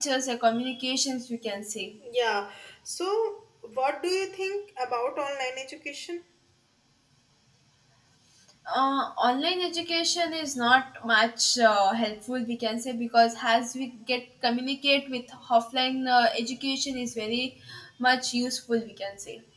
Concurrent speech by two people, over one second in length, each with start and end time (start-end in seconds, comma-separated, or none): none